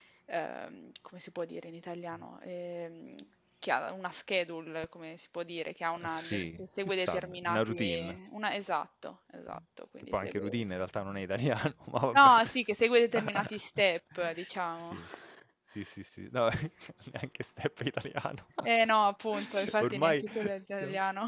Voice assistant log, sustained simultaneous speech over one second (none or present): present